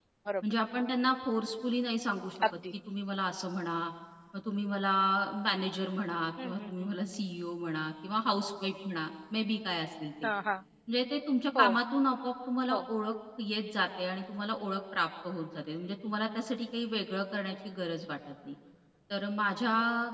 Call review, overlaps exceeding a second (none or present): none